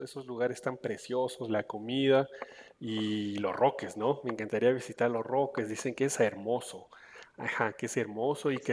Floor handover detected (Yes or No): No